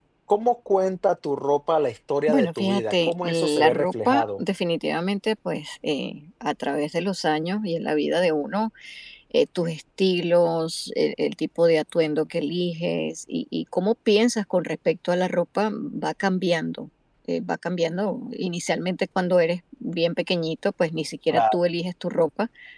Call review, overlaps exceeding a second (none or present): present